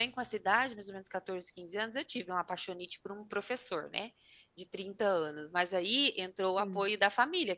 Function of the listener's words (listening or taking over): listening